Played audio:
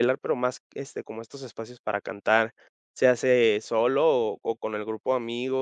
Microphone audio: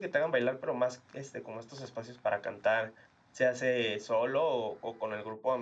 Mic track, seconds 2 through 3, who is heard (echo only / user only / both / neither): echo only